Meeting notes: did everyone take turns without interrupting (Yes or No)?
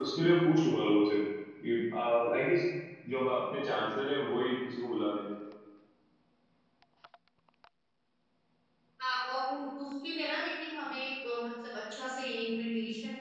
Yes